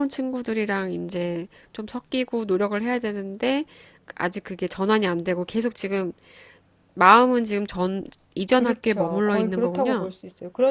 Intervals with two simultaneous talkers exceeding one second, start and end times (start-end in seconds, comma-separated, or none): 8.5-10.1